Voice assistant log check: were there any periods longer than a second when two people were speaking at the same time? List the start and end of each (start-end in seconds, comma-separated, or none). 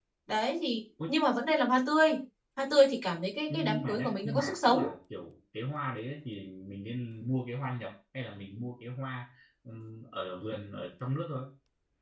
3.5-4.8